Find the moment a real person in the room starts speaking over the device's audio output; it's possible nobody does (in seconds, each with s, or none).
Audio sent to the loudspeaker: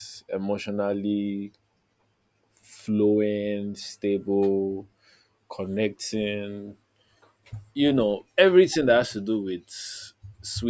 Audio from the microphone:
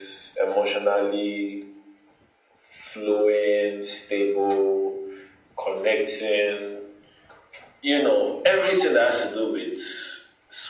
none